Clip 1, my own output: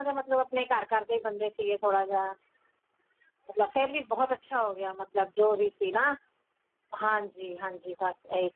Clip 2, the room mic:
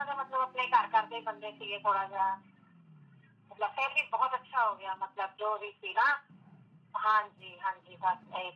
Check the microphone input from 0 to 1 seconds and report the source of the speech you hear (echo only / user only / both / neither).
echo only